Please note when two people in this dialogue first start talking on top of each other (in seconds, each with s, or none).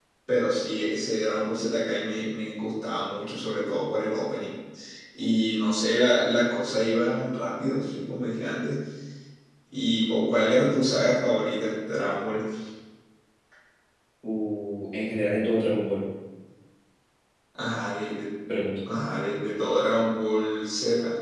none